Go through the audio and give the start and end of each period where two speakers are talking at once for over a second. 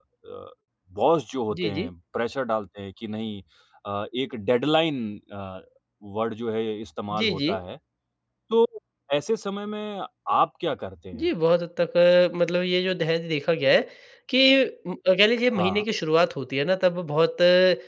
none

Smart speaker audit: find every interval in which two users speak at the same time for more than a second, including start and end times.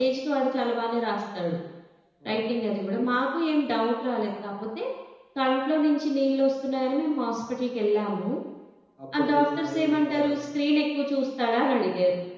9.2-10.4

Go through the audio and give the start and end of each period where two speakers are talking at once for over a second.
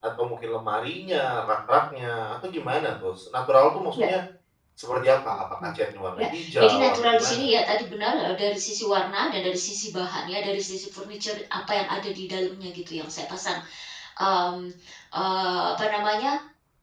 6.2-7.5

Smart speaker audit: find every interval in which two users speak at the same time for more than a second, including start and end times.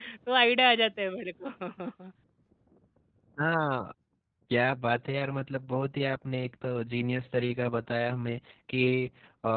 none

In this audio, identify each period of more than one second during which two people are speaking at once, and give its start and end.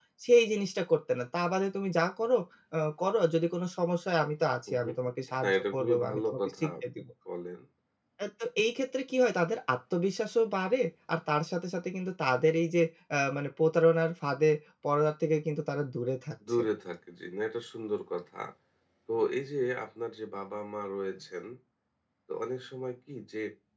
5.4-6.7

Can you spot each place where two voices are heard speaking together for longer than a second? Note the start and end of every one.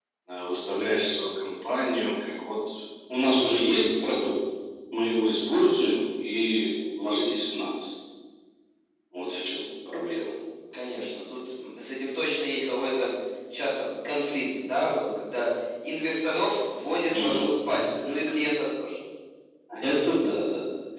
none

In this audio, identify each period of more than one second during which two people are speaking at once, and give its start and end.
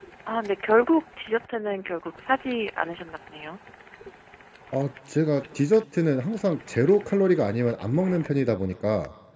none

